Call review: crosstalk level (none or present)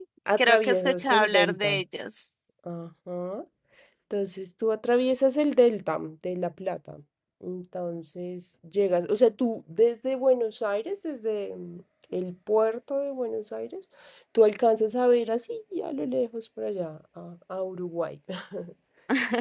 present